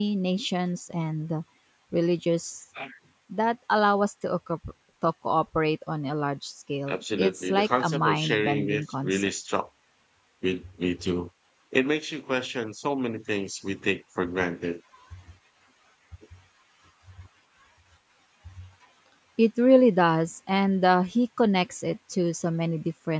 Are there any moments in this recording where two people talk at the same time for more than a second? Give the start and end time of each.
6.9-9.3

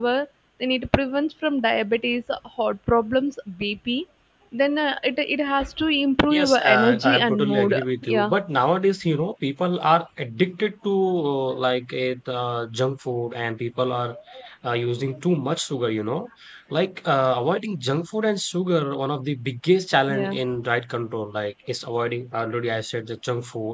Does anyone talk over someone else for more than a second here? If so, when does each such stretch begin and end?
6.3-8.3

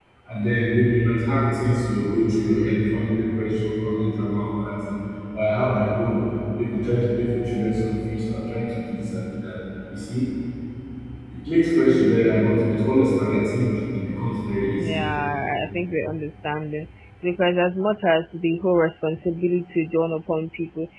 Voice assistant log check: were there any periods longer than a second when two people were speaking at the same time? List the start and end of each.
none

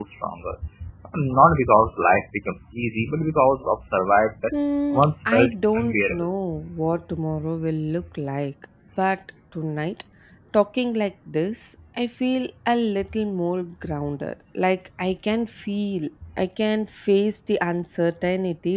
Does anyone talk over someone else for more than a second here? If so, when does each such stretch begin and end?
4.9-6.3

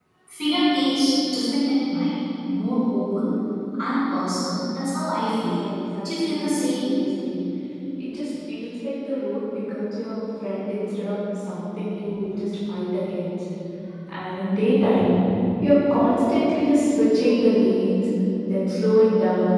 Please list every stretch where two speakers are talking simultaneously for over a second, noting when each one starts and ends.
5.4-7.1

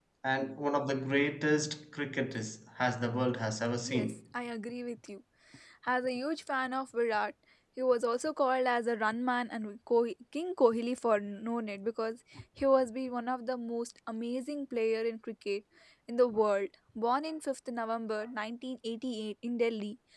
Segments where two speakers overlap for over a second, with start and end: none

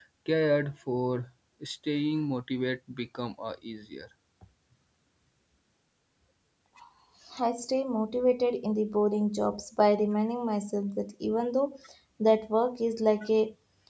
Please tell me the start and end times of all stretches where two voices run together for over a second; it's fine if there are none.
none

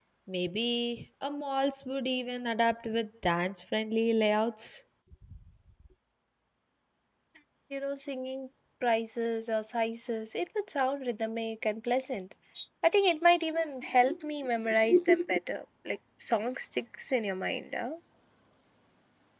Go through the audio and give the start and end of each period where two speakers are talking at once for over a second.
none

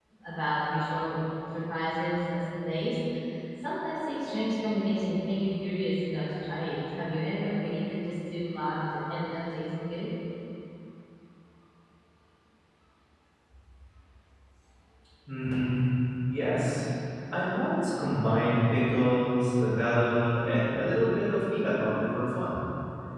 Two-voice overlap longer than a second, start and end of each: none

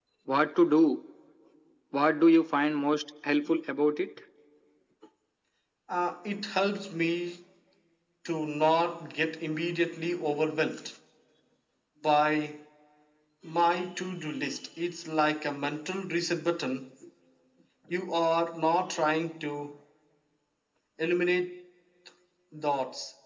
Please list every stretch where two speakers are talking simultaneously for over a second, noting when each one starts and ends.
none

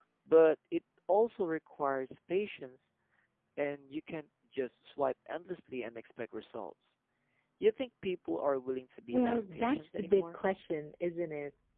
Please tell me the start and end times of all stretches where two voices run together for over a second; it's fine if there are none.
9.1-10.4

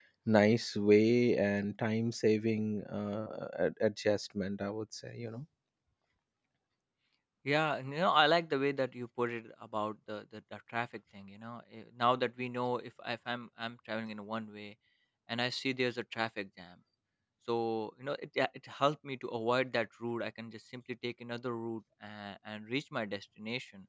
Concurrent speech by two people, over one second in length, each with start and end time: none

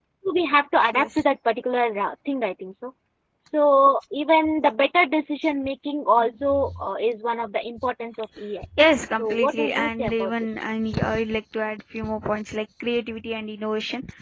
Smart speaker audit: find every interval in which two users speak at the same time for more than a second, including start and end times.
9.1-10.6

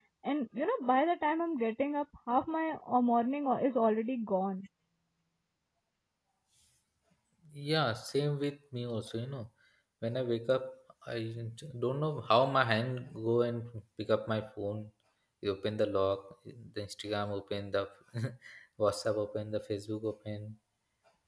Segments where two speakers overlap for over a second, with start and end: none

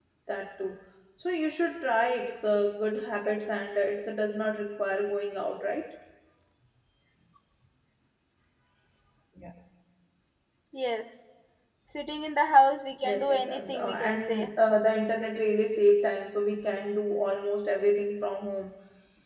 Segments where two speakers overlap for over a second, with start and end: 13.0-14.5

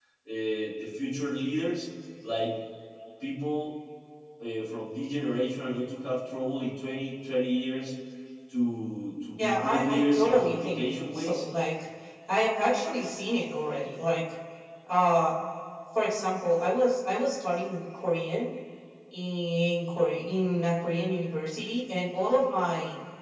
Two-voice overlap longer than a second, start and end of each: 9.4-11.4

